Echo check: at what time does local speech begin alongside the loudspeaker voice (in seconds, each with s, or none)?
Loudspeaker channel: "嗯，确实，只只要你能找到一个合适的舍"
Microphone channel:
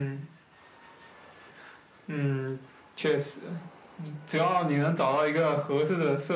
none